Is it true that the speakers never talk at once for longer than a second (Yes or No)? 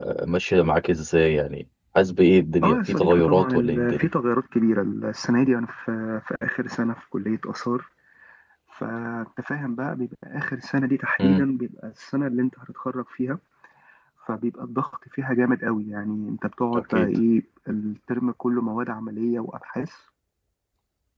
No